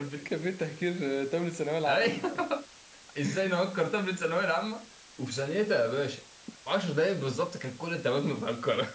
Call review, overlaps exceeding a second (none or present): none